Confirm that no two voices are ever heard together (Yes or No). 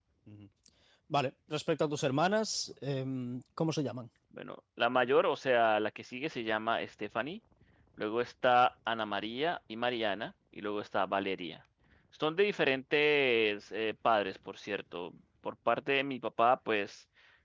Yes